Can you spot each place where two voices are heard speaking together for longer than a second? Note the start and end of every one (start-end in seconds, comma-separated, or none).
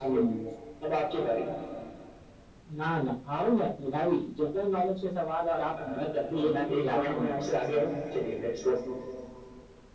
5.8-7.8